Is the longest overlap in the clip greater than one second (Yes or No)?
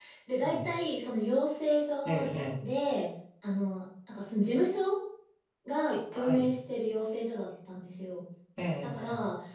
No